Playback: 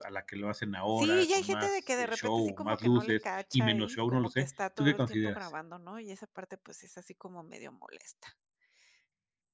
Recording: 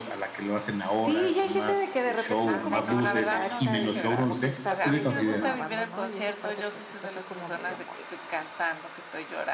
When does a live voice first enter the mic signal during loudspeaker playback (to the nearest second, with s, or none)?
2 s